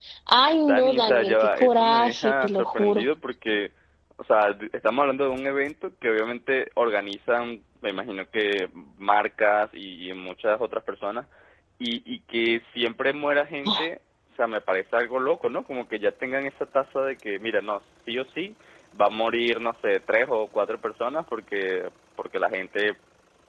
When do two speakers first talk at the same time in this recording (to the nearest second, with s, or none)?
1 s